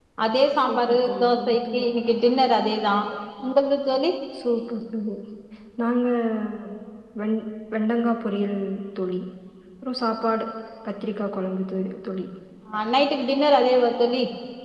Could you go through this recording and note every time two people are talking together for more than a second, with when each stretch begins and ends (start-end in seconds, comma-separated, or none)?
0.6-1.8